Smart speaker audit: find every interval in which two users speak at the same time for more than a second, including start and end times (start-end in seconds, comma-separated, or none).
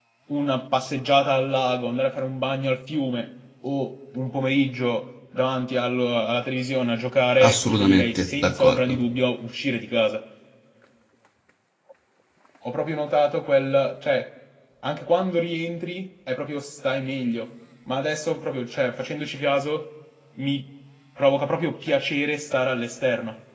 7.4-9.0